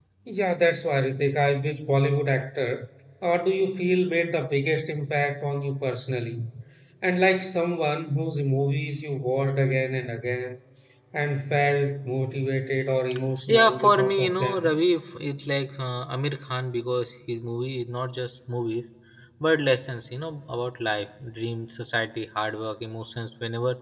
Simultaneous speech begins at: 13 s

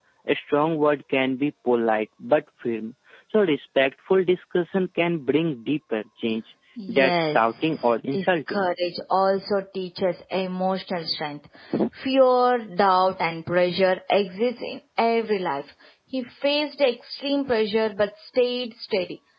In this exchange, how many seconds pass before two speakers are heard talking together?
7 s

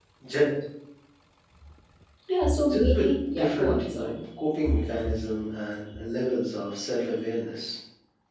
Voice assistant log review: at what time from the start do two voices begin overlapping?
3 s

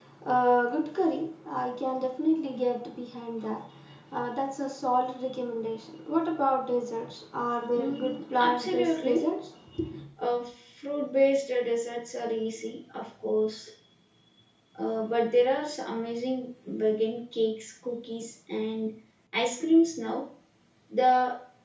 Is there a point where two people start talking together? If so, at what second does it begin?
8 s

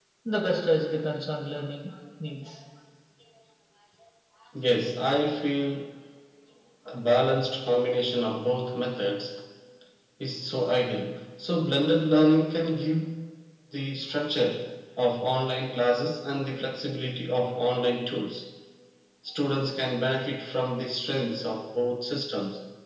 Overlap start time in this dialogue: none

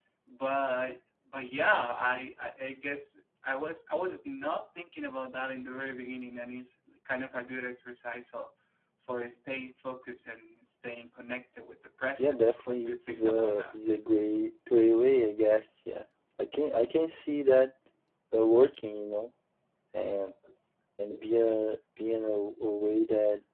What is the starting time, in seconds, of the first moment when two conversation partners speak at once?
12 s

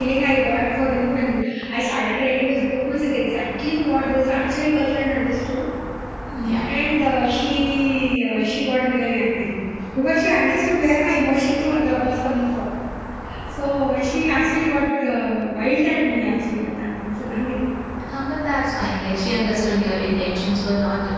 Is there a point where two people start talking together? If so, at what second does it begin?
none

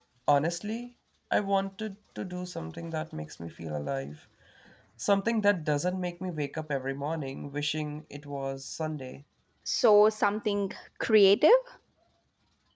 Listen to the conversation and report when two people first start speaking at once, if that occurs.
none

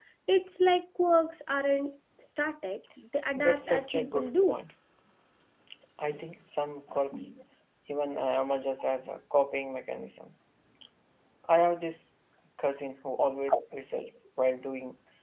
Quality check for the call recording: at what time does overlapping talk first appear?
3 s

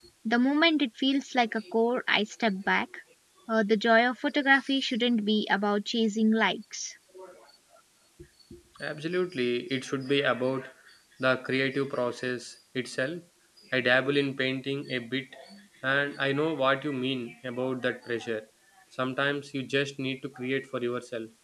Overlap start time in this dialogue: none

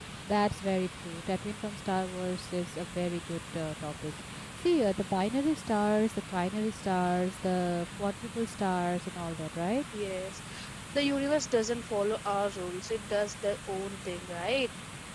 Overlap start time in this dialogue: none

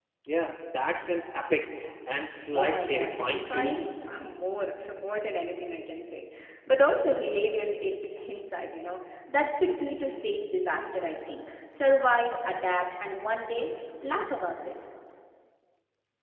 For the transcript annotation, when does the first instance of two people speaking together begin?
3 s

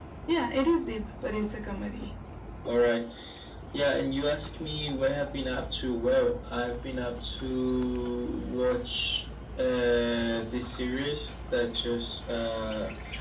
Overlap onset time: none

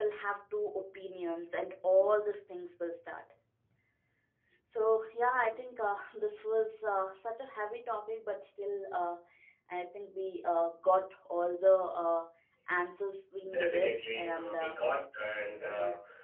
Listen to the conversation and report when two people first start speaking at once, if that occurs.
13 s

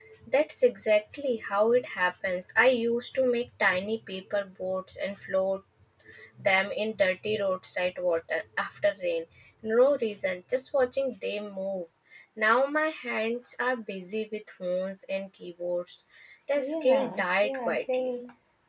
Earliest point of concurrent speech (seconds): 17 s

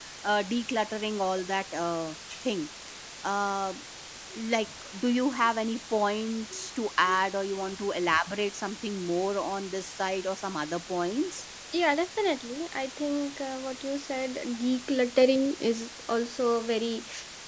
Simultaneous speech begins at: none

